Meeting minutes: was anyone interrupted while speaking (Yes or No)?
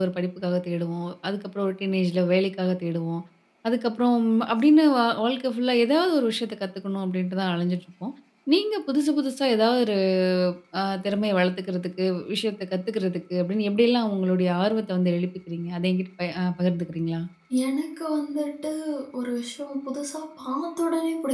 No